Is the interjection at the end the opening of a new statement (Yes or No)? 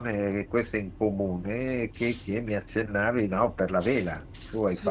Yes